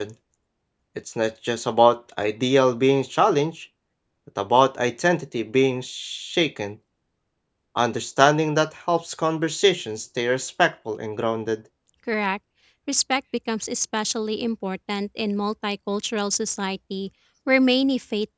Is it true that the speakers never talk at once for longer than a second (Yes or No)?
Yes